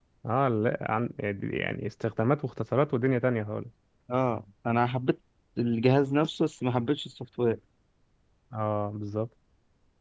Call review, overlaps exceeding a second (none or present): none